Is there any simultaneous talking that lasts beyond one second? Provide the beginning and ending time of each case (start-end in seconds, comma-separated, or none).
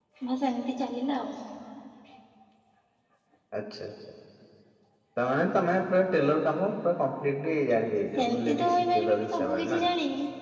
8.2-9.8